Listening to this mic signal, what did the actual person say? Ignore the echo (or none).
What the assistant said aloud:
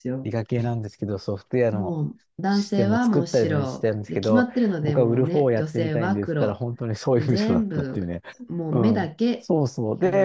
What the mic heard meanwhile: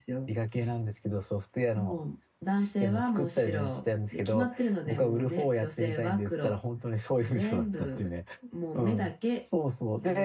none